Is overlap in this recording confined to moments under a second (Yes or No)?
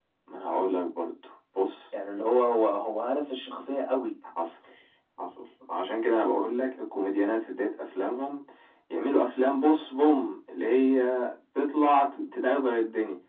Yes